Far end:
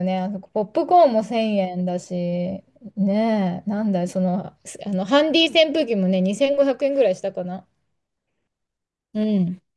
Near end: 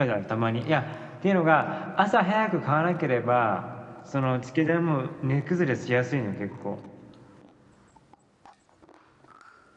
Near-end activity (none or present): present